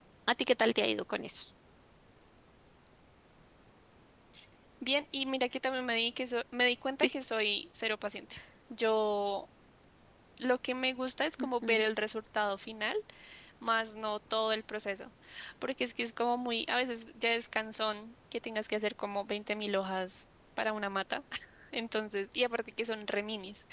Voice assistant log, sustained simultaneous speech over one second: none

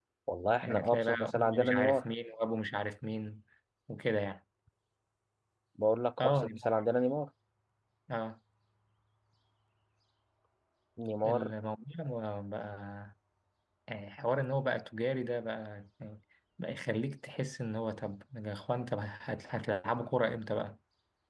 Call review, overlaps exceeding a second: present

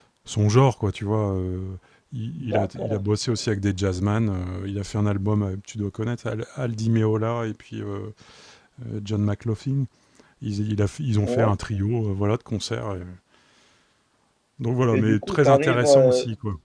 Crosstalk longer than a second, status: present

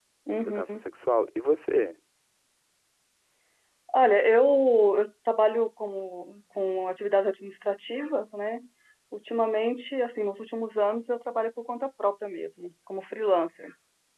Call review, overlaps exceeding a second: none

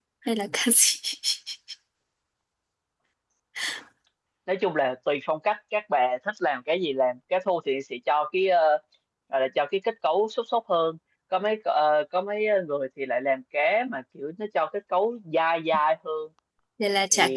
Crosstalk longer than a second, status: none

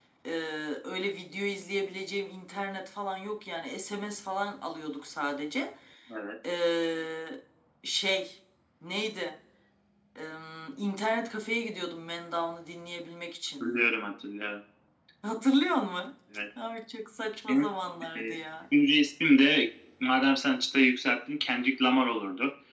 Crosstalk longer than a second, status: none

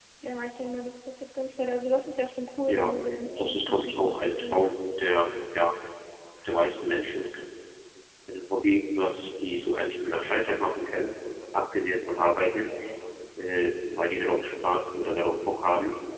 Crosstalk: present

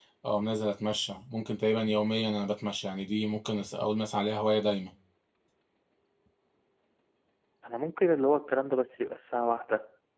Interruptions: none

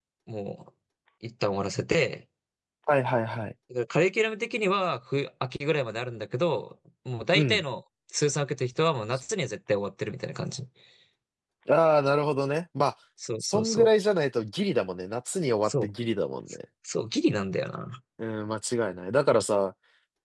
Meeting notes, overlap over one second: none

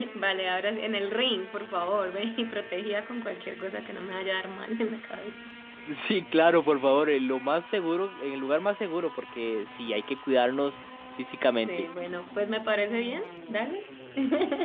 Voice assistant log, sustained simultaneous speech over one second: none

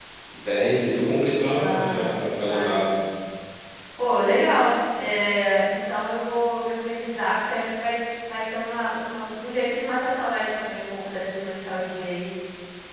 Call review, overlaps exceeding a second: present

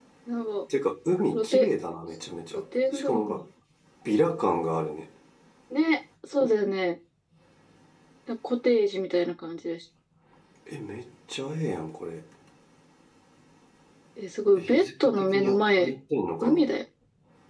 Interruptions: present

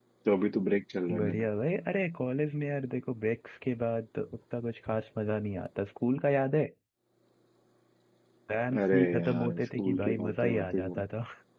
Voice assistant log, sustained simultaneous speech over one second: present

